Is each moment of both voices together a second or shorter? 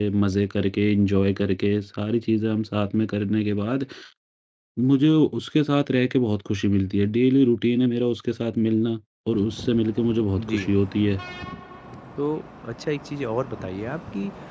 Yes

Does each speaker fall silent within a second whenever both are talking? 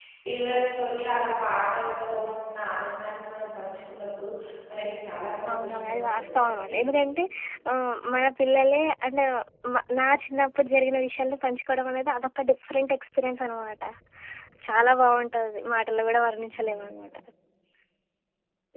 No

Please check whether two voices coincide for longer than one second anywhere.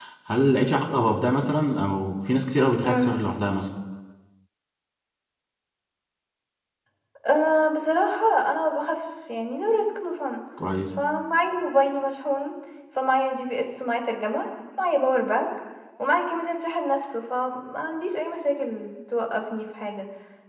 No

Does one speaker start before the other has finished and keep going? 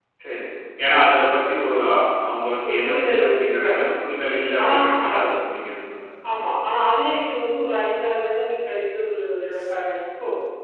Yes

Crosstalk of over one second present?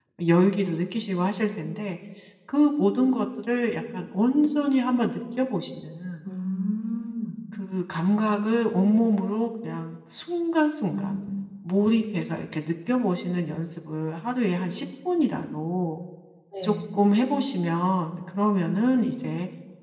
No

